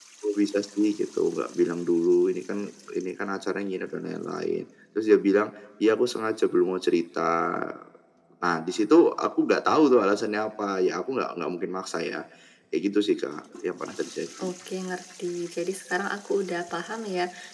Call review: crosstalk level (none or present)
none